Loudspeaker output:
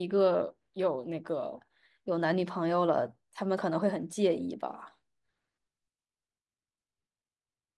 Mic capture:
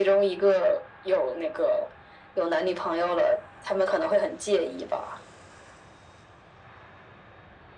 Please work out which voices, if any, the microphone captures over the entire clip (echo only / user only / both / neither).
echo only